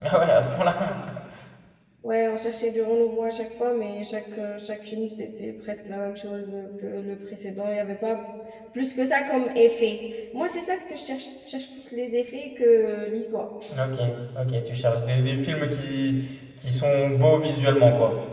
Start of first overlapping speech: none

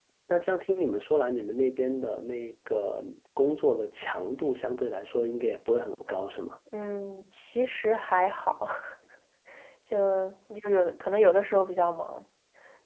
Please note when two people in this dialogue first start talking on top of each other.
none

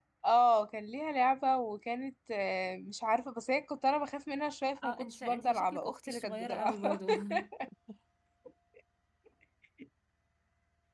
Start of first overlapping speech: 4.8 s

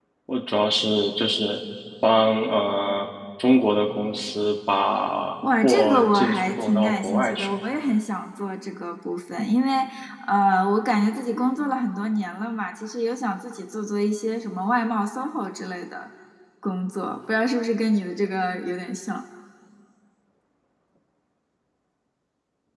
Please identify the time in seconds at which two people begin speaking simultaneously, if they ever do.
5.4 s

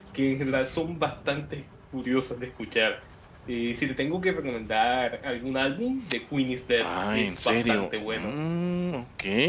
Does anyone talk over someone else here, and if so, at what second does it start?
6.8 s

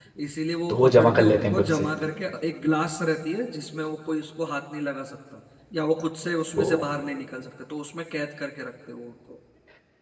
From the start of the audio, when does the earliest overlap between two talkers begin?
0.7 s

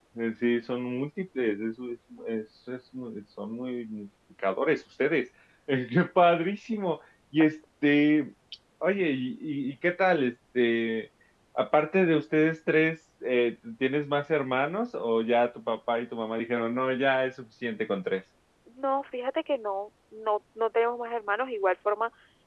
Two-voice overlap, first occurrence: none

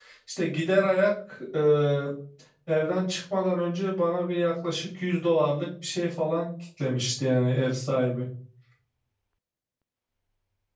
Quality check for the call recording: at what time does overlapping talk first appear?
none

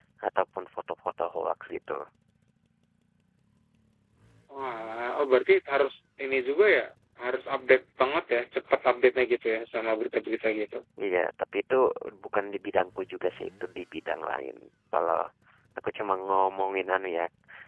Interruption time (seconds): none

